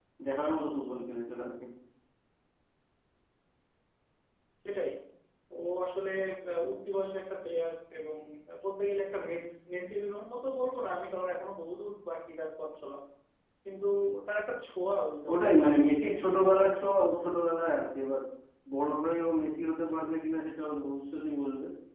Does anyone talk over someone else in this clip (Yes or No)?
Yes